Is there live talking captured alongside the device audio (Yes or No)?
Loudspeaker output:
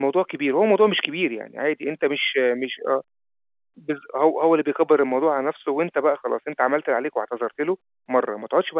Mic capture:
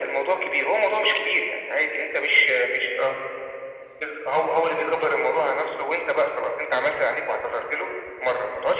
No